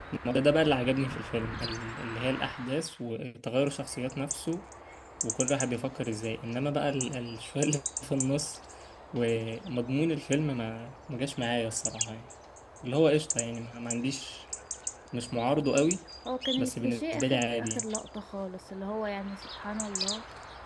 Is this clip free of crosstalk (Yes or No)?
No